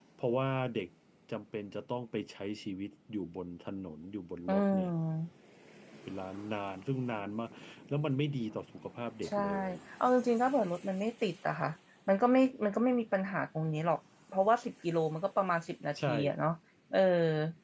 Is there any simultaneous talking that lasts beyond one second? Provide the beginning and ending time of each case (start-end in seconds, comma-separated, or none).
none